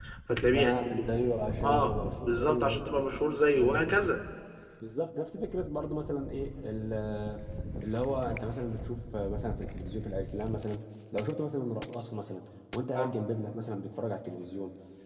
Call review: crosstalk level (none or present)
present